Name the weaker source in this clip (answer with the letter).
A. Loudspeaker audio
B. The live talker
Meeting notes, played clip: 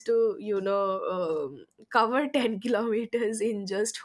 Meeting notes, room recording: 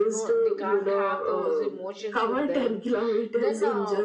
B